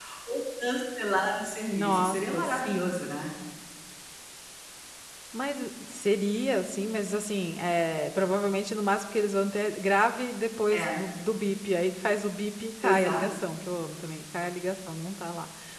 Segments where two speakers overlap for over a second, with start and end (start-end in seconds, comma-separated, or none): 1.6-3.0